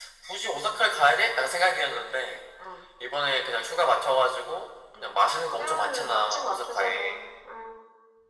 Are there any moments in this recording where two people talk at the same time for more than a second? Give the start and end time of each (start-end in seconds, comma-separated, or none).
5.6-7.0